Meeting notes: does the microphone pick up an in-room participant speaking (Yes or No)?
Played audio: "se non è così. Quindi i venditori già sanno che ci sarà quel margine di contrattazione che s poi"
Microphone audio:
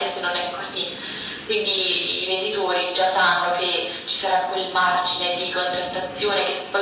No